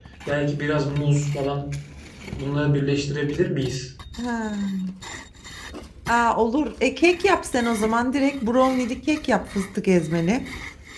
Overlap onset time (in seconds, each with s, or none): none